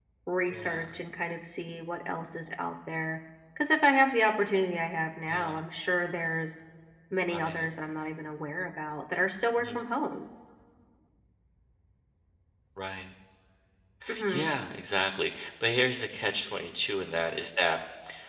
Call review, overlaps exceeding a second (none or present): none